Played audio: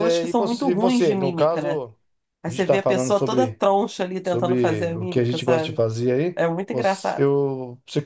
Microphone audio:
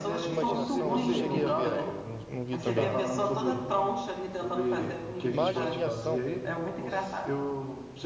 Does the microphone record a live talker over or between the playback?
Yes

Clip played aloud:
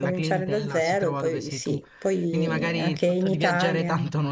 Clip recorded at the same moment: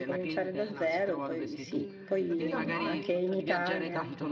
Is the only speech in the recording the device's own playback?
No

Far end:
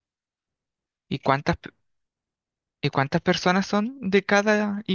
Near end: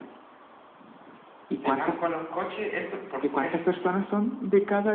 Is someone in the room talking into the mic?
Yes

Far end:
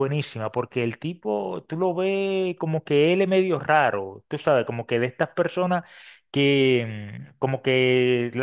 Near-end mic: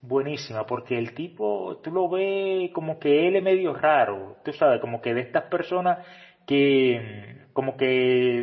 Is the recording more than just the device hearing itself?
No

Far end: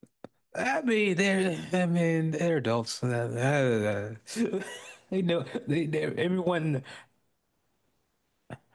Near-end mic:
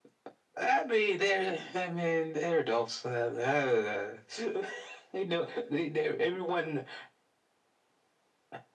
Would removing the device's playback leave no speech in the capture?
Yes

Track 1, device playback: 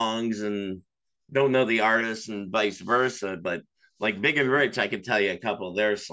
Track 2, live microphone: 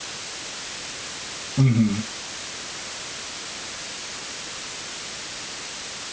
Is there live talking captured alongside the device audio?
Yes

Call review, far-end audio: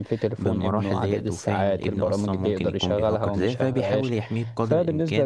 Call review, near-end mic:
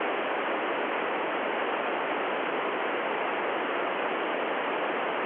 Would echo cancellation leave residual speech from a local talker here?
No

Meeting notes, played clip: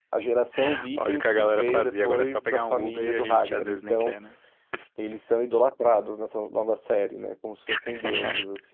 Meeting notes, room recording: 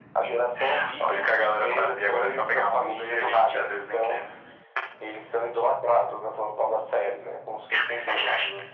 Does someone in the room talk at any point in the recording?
No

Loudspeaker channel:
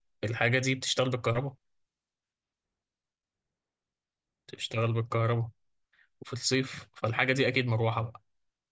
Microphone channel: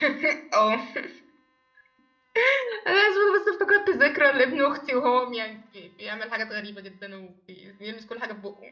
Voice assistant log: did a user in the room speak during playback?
Yes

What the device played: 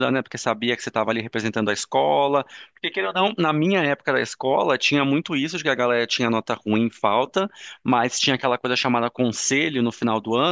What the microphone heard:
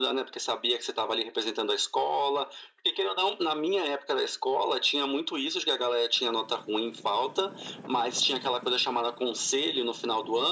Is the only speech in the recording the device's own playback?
Yes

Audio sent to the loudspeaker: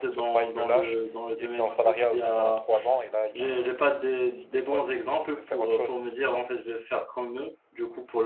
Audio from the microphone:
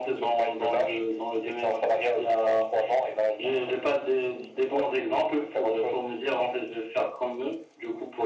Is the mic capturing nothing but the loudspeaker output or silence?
Yes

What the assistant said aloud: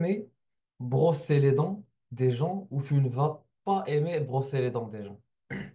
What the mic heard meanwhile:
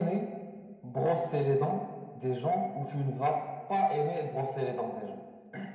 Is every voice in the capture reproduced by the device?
Yes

